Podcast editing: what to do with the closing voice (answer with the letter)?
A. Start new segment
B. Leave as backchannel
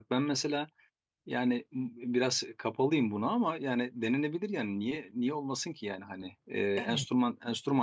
B